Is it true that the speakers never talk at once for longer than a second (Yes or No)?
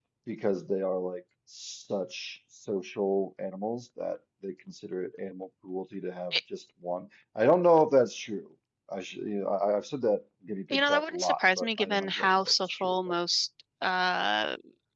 No